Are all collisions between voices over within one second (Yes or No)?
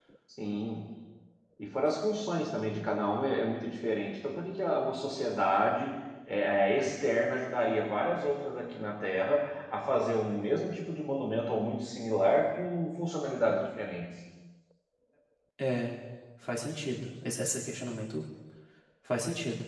Yes